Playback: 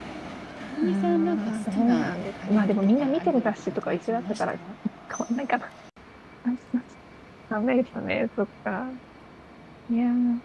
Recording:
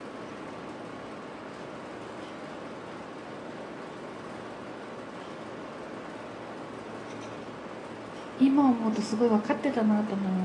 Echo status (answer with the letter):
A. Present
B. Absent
B